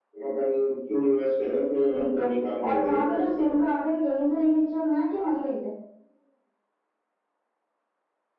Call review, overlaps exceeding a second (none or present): present